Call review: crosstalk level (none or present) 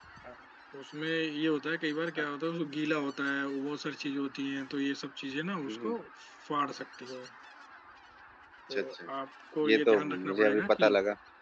present